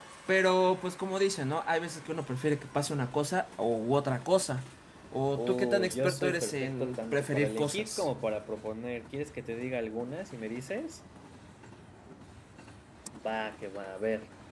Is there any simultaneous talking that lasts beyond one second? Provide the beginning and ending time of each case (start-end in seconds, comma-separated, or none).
5.4-8.1